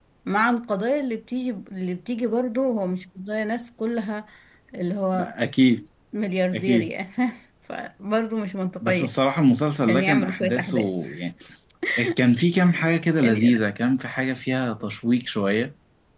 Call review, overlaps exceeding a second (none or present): present